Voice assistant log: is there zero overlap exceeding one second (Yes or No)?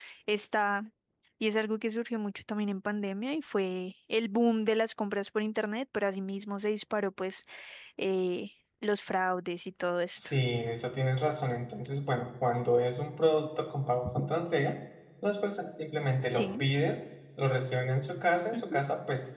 Yes